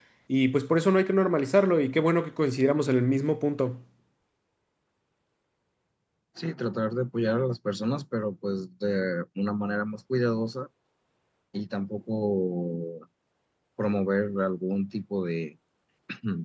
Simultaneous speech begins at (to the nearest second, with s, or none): none